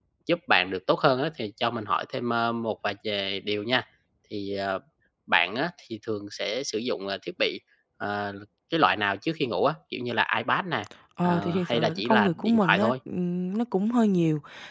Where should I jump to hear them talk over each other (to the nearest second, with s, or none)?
11 s